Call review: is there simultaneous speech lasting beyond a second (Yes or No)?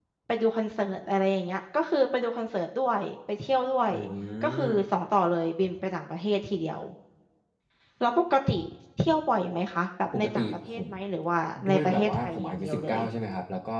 Yes